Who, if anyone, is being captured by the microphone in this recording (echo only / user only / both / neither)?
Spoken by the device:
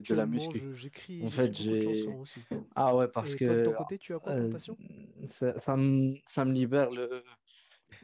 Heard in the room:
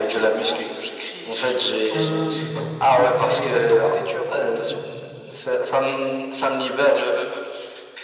both